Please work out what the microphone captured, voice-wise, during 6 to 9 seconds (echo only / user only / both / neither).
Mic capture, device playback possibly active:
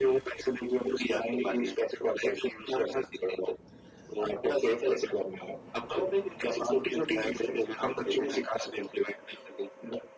echo only